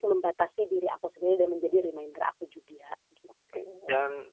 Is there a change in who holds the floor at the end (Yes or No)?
Yes